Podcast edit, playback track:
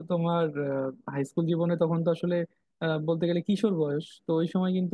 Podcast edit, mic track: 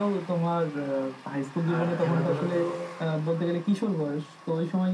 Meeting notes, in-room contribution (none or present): present